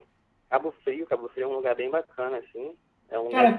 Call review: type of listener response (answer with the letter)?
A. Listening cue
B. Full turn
B